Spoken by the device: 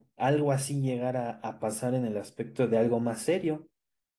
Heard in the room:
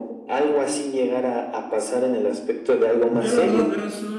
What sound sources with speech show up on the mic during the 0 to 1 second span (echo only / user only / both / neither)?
echo only